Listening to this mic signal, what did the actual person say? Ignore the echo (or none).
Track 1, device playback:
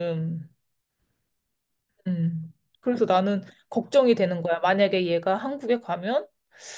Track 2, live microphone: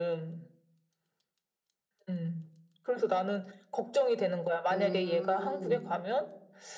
음.